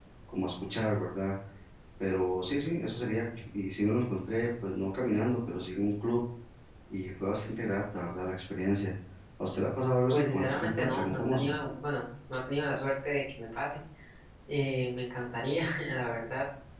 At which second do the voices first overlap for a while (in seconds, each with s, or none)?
10.1 s